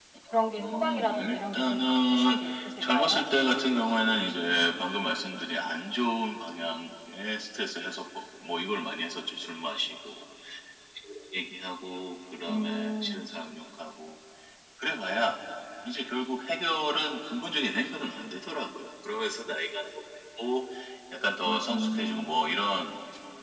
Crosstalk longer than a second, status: present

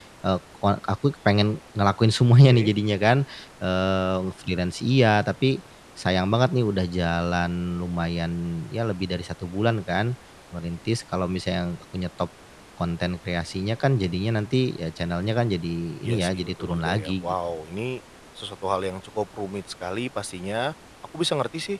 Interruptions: present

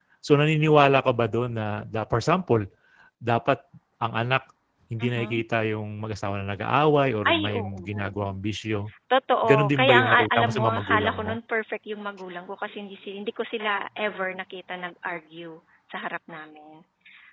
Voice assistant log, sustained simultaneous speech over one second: present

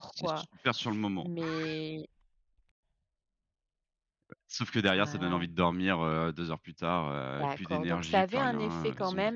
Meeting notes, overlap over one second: present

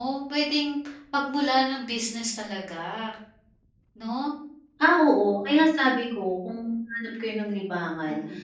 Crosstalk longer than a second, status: none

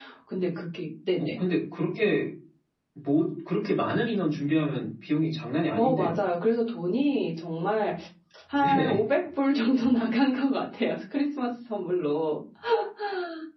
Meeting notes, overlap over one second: none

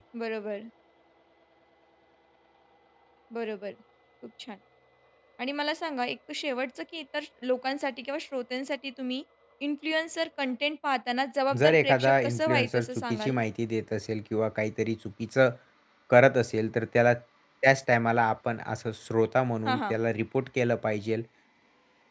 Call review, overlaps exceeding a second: present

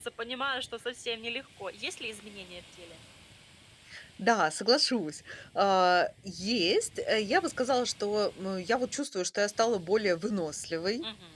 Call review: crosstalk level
none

